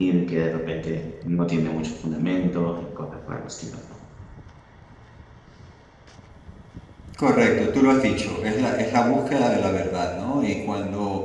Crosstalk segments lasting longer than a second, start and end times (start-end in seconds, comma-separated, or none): none